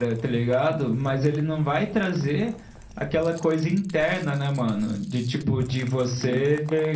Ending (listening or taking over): listening